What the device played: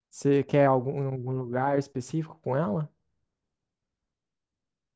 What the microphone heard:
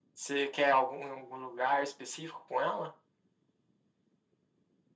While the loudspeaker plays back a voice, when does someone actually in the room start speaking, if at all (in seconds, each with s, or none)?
none